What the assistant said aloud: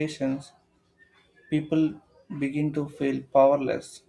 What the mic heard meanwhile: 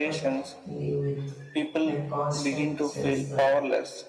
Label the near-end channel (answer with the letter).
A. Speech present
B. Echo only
A